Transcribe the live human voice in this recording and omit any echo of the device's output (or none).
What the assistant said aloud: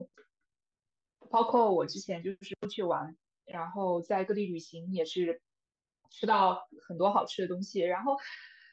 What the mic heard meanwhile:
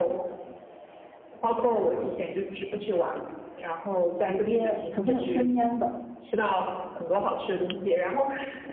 直接首先有生腌的，